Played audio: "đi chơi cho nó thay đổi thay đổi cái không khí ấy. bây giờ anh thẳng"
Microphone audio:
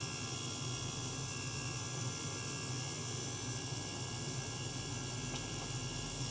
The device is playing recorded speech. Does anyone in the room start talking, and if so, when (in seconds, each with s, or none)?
none